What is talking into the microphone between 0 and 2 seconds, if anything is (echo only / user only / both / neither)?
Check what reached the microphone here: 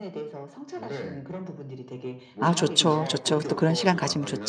echo only